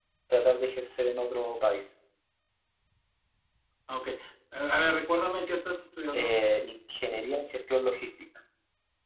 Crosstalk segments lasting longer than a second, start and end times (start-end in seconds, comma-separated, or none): none